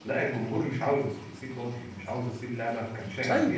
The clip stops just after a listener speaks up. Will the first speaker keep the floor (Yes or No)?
No